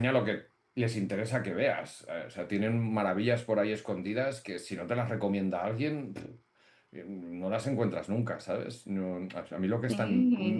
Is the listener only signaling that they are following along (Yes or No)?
Yes